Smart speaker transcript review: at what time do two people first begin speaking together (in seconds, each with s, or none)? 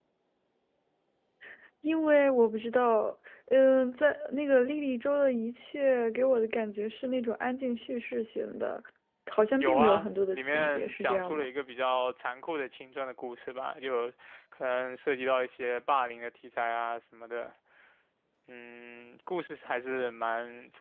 9.6 s